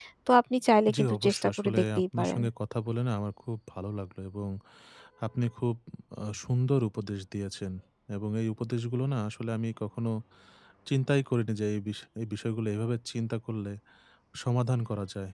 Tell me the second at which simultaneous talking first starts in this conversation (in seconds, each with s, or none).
1.0 s